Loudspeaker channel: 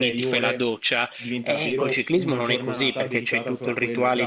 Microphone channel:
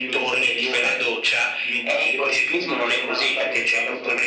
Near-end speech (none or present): none